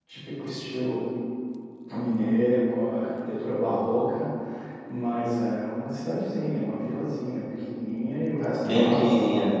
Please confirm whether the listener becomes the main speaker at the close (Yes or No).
No